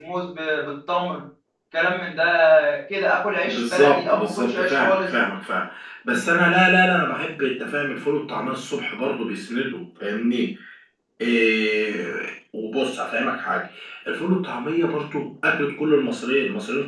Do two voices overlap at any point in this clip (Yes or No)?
Yes